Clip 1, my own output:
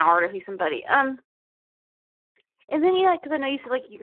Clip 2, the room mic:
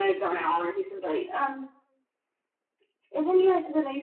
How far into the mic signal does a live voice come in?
none

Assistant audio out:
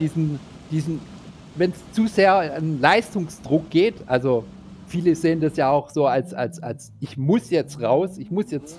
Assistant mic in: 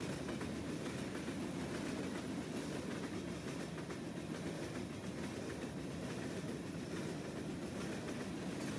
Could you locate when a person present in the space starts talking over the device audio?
none

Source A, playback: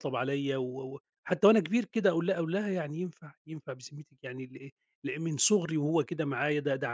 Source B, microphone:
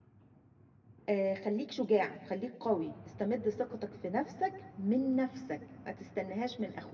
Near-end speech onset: 1 s

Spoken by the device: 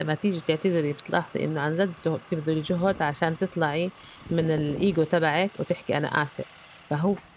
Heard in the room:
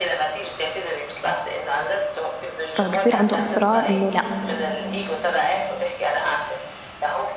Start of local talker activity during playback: 3 s

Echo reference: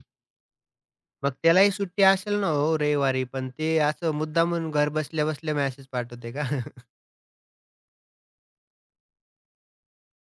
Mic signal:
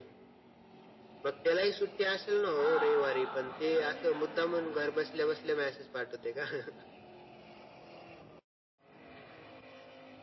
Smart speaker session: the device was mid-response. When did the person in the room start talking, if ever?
3 s

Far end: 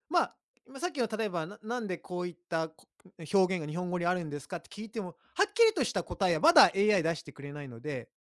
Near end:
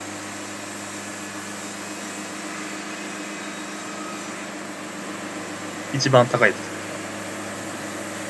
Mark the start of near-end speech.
6 s

